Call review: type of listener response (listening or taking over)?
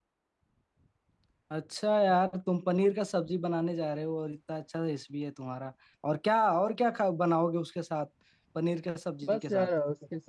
taking over